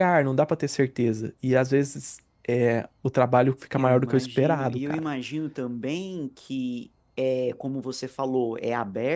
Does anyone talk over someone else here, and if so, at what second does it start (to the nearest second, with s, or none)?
4 s